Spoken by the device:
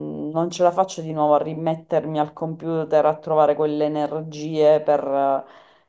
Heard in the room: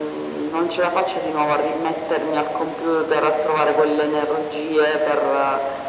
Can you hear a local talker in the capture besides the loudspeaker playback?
No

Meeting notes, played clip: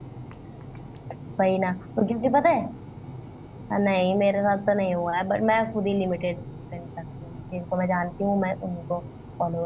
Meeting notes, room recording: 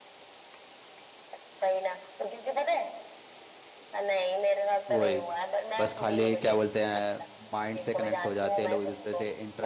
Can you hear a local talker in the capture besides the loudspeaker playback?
Yes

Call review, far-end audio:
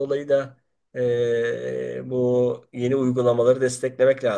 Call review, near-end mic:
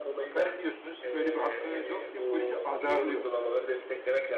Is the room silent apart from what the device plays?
No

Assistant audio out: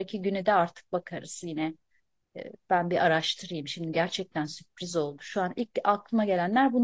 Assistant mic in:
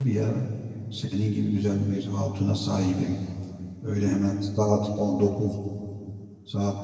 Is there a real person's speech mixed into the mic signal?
Yes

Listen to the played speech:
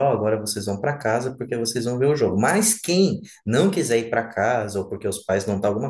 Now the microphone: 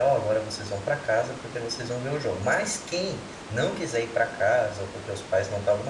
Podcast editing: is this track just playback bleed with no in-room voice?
Yes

